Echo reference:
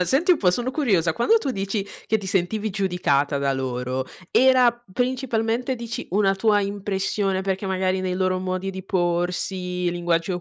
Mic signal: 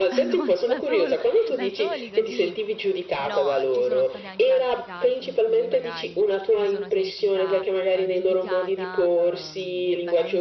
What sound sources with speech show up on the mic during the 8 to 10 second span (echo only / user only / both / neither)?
both